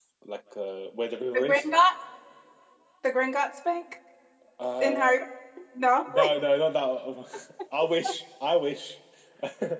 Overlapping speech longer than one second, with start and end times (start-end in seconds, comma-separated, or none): none